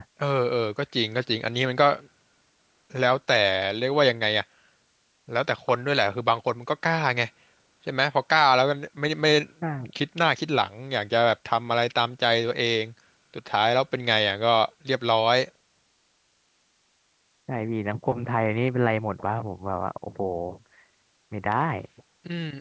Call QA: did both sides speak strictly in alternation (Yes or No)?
Yes